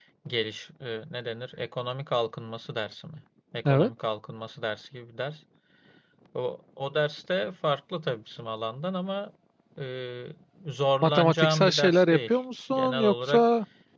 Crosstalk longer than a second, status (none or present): present